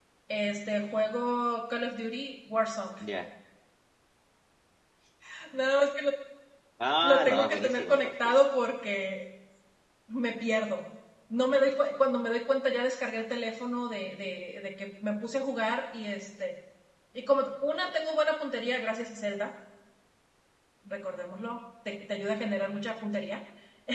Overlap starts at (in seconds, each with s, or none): 7.0 s